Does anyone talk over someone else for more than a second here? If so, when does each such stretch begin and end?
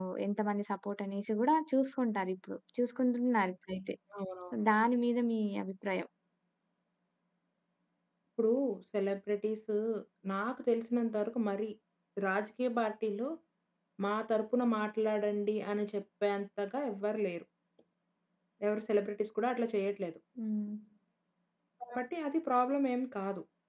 none

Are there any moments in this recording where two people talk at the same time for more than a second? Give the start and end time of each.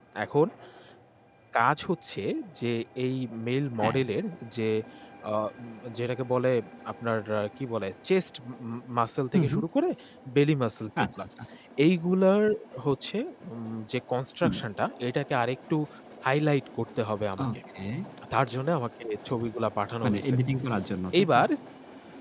none

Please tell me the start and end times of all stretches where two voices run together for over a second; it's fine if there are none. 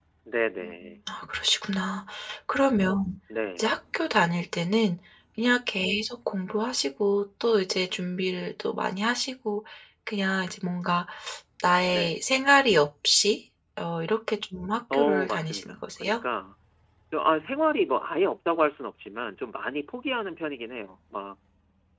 14.9-16.2

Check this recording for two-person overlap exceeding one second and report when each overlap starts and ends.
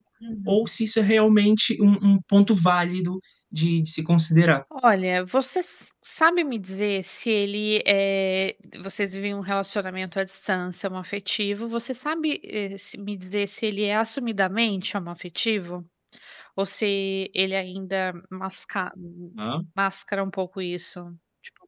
none

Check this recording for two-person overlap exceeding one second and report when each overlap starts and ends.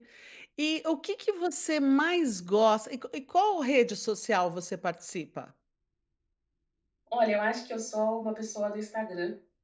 none

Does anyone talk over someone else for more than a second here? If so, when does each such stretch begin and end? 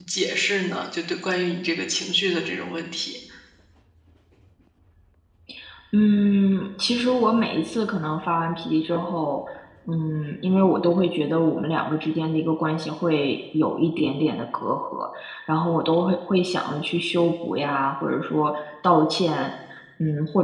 none

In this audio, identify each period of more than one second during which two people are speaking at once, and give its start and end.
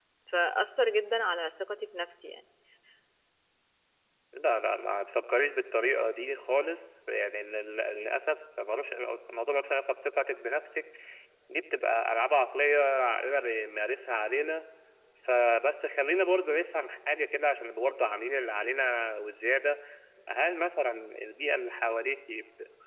none

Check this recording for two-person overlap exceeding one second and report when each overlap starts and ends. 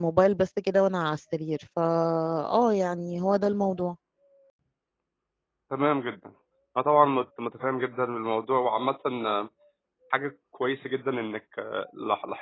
none

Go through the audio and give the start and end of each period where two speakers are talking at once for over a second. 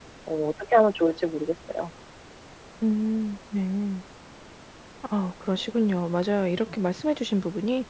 none

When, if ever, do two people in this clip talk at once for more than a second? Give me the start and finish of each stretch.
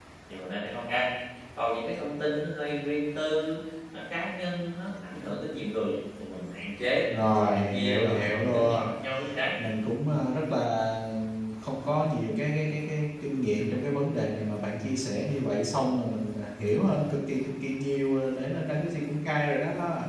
7.2-8.9

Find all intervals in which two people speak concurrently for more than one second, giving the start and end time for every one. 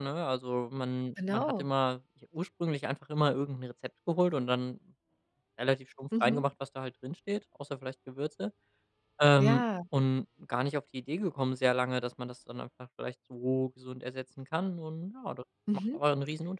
none

